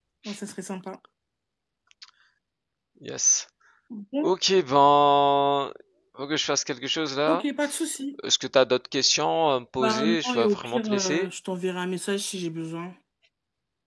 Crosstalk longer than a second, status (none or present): present